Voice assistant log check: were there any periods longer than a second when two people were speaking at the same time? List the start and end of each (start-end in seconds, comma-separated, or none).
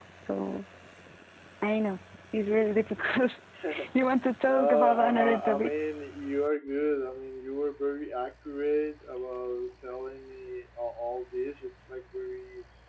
4.5-5.7